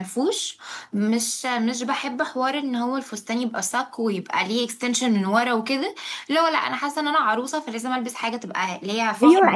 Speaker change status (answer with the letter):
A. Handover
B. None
A